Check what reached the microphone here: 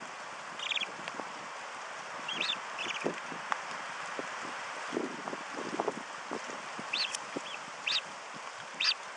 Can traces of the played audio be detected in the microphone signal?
No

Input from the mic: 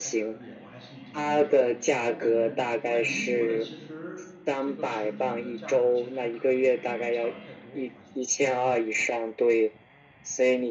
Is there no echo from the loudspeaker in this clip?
No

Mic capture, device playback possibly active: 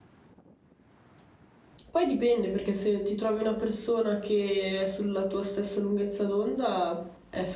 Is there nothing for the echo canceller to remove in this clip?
Yes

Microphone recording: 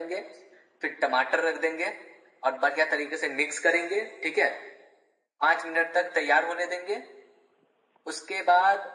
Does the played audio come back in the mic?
Yes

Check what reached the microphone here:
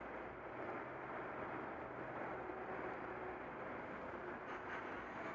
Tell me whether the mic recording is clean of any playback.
Yes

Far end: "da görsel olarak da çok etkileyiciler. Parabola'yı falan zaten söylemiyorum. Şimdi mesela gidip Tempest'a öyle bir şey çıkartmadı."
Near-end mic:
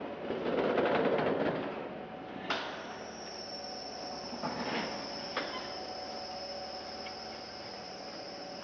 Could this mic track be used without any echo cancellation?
Yes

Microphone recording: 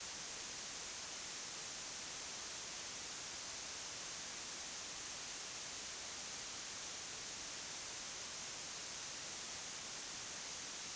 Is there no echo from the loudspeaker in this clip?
Yes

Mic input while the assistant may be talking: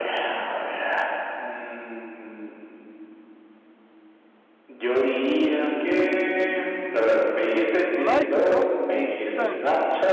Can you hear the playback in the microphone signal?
Yes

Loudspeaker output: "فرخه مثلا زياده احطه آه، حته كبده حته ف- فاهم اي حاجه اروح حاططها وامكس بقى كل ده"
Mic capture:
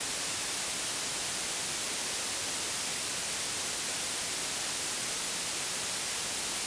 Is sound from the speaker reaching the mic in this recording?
No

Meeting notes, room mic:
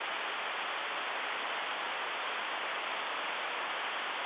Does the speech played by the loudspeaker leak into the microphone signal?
No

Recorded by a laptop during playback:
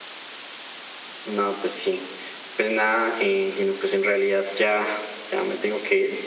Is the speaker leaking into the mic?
Yes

